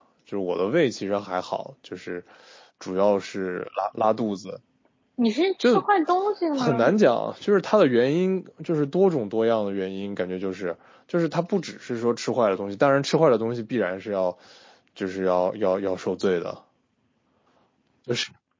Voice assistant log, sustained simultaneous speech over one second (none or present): none